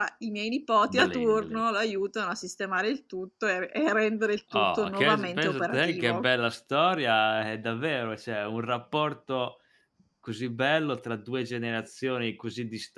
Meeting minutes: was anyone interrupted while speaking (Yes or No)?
Yes